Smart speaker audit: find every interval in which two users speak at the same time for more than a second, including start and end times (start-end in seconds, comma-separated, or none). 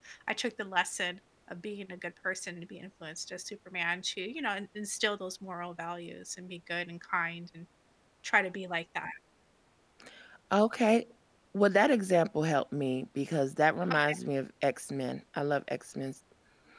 none